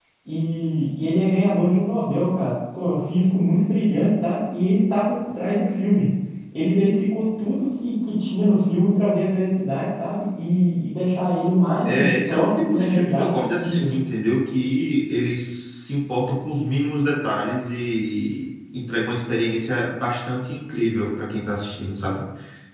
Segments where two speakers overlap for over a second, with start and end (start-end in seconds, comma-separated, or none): 11.8-14.0